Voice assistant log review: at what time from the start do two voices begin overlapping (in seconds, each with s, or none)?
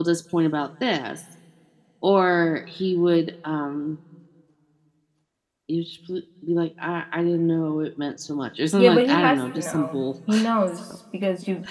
8.8 s